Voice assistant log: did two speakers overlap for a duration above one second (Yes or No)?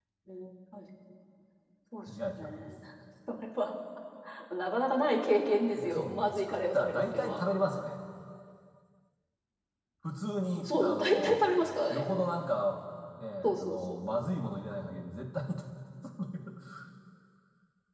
Yes